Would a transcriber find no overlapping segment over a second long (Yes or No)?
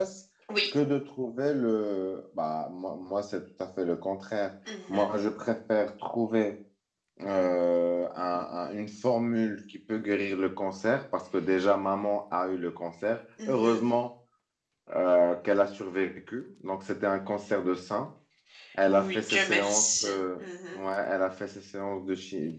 No